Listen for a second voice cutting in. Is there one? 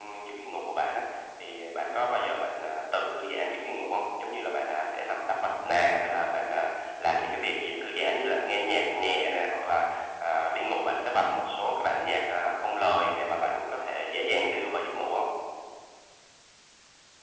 No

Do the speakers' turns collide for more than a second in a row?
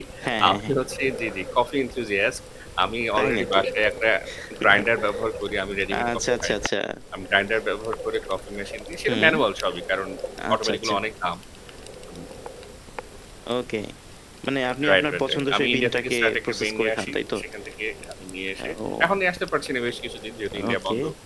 Yes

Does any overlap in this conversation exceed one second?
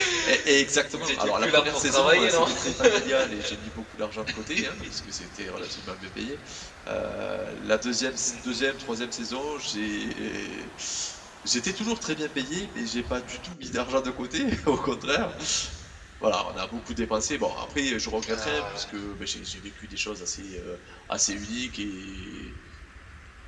Yes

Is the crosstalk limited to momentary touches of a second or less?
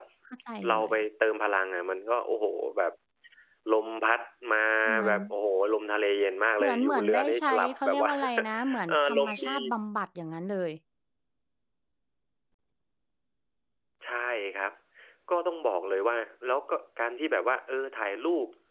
No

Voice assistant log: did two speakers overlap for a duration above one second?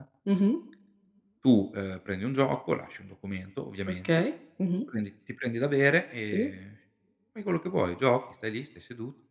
No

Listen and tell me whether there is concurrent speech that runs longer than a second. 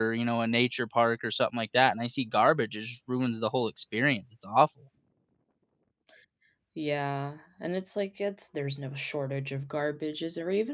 No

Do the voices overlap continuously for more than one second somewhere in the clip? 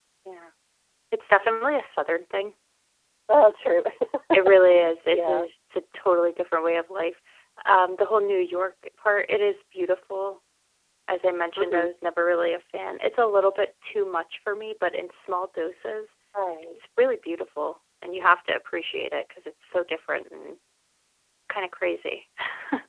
No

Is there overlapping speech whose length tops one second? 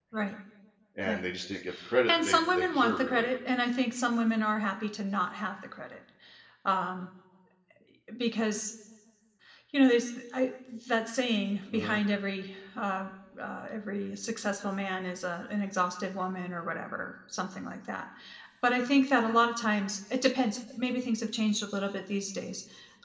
Yes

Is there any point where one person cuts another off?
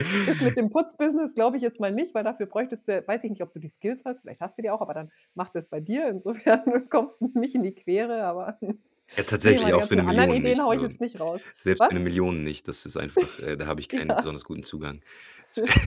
Yes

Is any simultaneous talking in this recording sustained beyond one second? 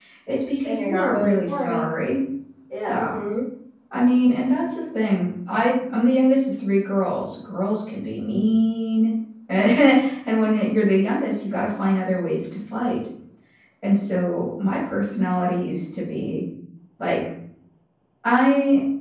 Yes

